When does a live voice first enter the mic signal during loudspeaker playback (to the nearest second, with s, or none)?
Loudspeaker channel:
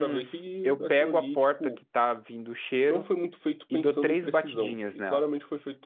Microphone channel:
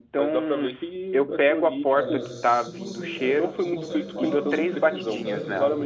2 s